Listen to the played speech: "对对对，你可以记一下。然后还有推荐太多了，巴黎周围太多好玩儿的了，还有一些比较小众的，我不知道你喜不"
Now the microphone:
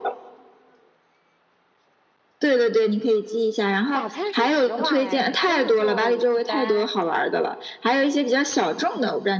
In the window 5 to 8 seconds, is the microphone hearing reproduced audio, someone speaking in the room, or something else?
both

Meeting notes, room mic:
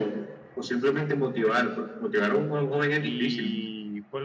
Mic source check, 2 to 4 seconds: both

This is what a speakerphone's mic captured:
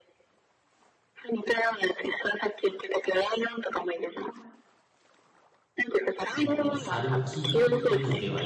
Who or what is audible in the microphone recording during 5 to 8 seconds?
both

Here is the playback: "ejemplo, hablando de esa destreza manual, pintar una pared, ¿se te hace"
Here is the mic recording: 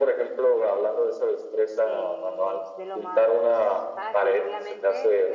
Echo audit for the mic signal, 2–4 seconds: both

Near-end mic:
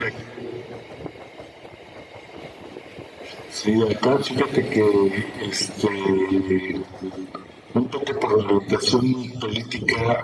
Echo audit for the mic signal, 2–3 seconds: neither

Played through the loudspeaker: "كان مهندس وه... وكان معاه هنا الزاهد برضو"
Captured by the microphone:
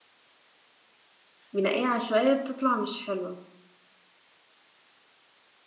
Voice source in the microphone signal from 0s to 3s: user only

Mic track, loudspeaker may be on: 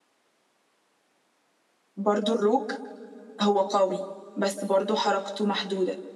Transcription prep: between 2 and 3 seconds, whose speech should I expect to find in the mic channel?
user only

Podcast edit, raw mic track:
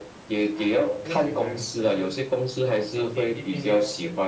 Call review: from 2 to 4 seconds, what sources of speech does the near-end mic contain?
both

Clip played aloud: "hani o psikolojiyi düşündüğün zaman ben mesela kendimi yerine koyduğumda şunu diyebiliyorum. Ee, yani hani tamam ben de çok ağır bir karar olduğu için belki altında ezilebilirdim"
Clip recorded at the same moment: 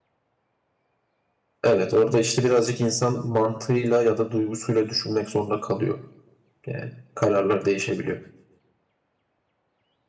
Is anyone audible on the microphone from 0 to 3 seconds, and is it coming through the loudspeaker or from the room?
user only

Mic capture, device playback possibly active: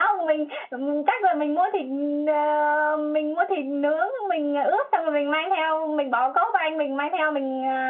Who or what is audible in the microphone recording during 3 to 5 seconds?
echo only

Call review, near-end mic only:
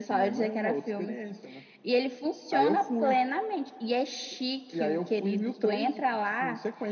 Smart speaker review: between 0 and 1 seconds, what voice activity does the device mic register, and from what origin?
echo only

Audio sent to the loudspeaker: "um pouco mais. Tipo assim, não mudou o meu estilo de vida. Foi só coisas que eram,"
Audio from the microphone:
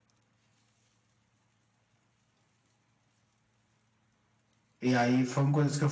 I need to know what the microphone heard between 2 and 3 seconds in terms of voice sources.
neither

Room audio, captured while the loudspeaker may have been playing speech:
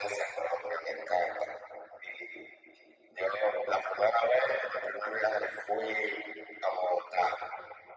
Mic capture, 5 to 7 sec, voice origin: echo only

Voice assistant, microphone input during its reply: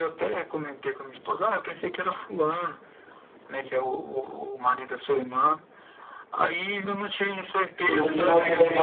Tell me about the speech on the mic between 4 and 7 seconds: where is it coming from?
echo only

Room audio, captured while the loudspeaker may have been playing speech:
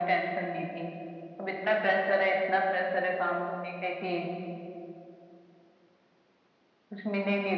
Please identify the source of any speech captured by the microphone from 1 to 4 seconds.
echo only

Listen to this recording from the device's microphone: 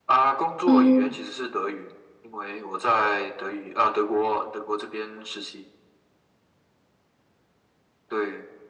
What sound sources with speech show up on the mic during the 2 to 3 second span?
echo only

